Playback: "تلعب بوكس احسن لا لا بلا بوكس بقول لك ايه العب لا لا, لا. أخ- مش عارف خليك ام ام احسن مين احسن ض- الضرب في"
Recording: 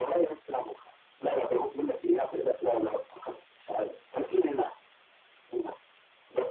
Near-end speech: none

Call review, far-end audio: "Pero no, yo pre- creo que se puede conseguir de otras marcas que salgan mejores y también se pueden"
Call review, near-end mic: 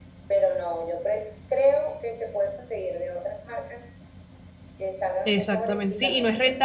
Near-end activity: present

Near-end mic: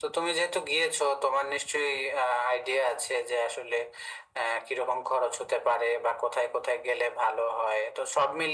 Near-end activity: none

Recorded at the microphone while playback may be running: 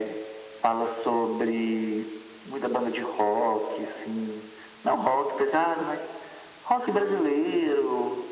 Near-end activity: present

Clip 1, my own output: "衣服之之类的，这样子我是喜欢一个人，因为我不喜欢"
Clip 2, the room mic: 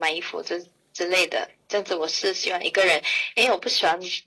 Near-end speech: none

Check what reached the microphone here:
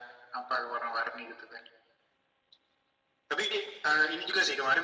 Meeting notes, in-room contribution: none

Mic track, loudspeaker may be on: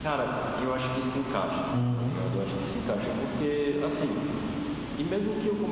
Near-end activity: present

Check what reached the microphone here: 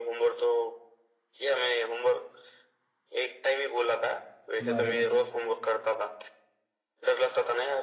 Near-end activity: present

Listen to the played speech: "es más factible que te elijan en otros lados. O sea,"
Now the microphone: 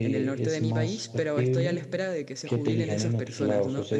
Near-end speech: present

